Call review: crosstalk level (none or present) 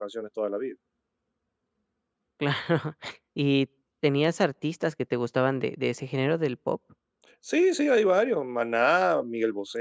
none